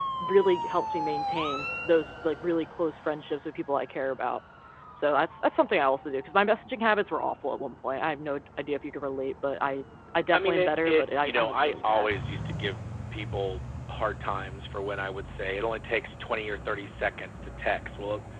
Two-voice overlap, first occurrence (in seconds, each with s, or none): 10.3 s